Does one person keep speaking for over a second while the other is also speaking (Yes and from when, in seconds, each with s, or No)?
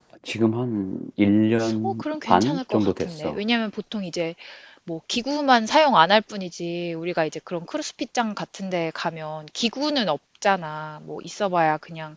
Yes, from 1.6 s